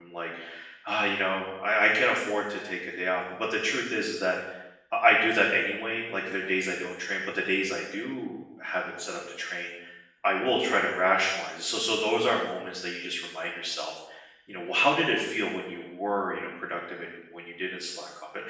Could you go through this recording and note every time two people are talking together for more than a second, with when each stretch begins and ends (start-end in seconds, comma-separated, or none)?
none